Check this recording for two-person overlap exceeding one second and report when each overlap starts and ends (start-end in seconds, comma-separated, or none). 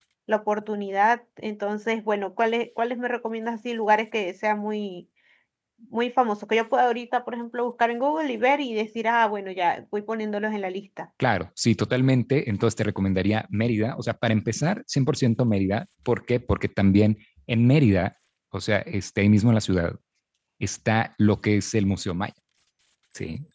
none